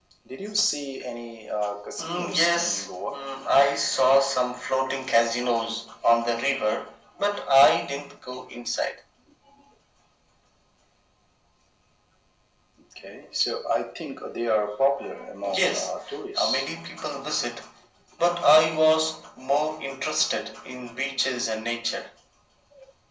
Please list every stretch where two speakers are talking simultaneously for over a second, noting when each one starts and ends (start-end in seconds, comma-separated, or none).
2.0-3.2